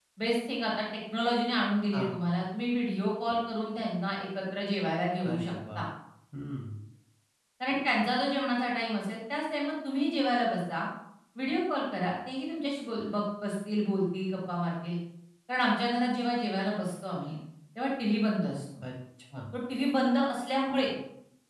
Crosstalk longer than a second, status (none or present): none